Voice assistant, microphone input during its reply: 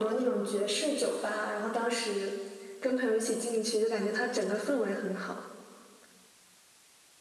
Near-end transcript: none

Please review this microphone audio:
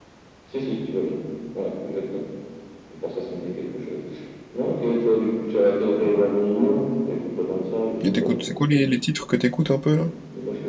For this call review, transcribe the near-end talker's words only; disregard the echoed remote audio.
Et t'écoutes, c'est quoi les, les titres que t'écoutes un peu là?

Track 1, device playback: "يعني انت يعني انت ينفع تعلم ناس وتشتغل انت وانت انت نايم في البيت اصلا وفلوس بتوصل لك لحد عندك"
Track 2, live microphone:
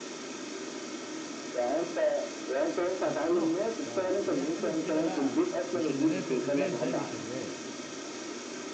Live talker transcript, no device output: بالظبط ف... فهي حلوه في كده بقى مش اللي نايم في البيت زي اللي شغال

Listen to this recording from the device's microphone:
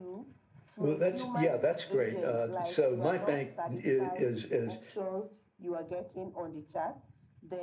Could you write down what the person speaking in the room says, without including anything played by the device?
Well, that's yeah, that's great. Uh, so my bank is, is is

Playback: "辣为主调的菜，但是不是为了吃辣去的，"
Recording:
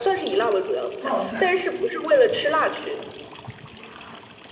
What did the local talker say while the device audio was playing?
冒菜、

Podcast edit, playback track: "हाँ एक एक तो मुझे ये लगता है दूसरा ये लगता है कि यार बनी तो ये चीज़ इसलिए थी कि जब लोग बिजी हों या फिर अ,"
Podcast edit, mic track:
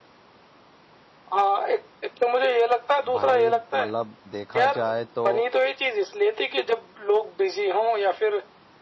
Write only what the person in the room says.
भाई मतलब देखा जाए तो

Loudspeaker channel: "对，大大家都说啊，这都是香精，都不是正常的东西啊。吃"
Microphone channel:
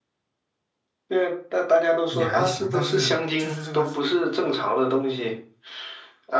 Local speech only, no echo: 也还行，但是就是这个

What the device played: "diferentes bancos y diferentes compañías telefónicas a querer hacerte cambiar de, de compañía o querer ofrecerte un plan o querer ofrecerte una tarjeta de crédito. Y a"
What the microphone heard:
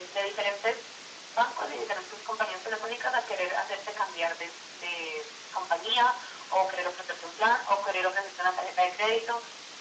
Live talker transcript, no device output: none

